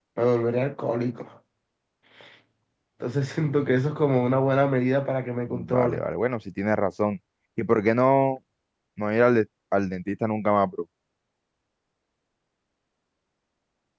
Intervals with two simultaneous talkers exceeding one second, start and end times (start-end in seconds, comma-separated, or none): none